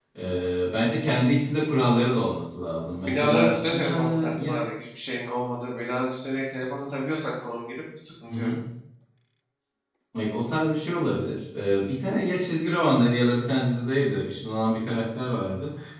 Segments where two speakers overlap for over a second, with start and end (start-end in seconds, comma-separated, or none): 3.0-4.6